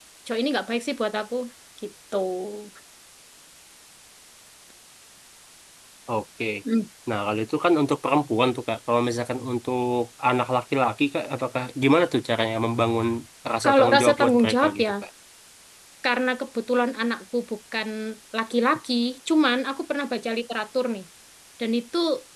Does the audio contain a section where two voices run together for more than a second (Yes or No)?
Yes